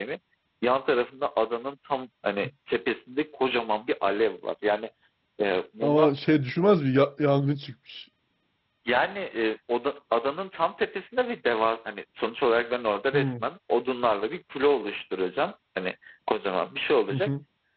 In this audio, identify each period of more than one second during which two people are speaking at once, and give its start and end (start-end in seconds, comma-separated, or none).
none